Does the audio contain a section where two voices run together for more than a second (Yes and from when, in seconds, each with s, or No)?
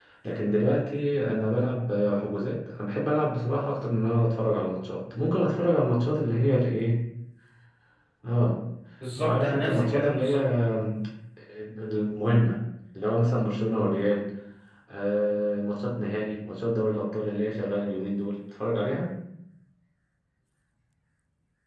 Yes, from 9.2 s